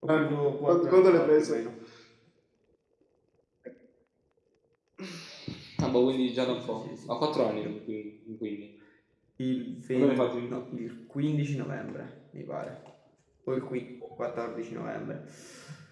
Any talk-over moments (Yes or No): Yes